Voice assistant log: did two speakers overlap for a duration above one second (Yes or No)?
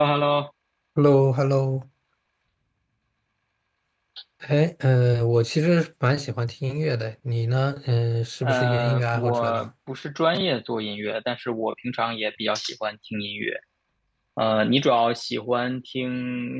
Yes